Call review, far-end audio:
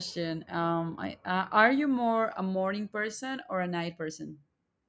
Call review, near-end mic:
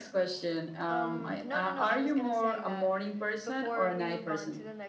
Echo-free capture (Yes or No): No